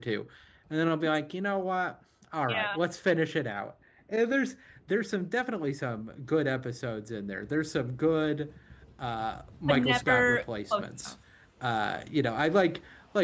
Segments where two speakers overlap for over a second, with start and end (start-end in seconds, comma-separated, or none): 9.7-11.1